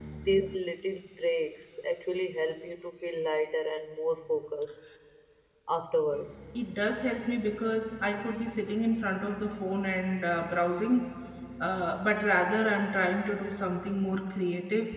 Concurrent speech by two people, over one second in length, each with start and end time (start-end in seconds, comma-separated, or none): none